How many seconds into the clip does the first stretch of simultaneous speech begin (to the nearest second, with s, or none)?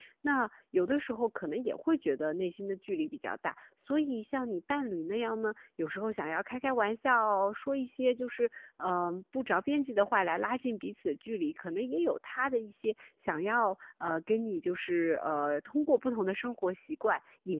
none